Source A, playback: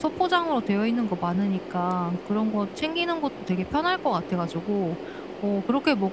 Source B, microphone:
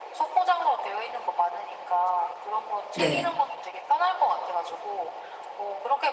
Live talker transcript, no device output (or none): 네.